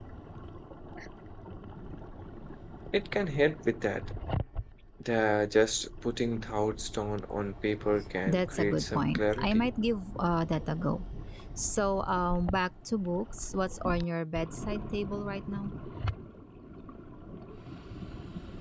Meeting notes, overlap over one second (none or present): present